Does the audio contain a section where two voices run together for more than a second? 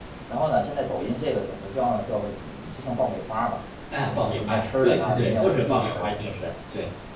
Yes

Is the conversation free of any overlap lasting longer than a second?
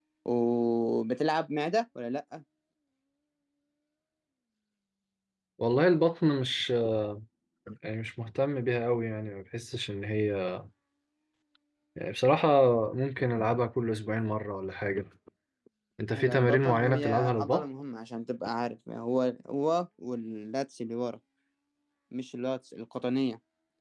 No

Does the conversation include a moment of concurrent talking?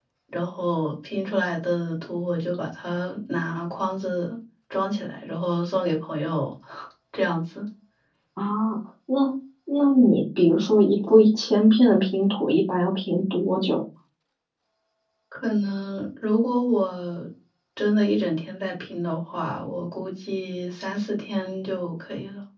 No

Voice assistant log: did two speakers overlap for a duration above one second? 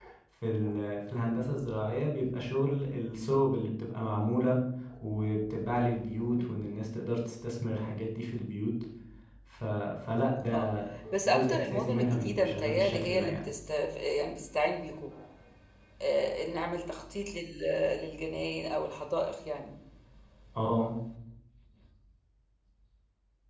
Yes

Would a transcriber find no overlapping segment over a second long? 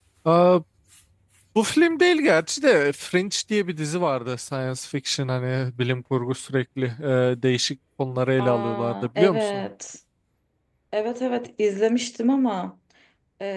No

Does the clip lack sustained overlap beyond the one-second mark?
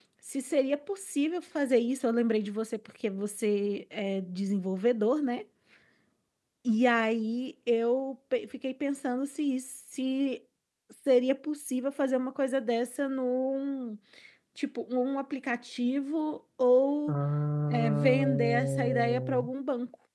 No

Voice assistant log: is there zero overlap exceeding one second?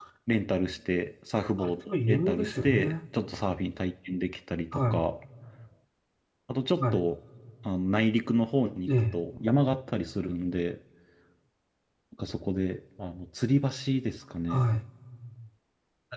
No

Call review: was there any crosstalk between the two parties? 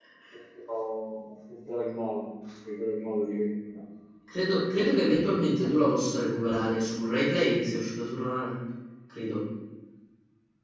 No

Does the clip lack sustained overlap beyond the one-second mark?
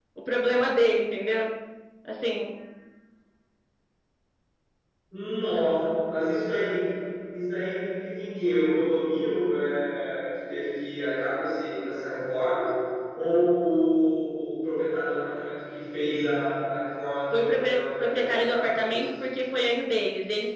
No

